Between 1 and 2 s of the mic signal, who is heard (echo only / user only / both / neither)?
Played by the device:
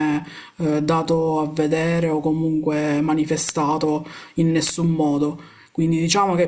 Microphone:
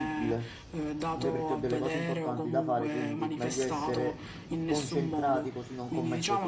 both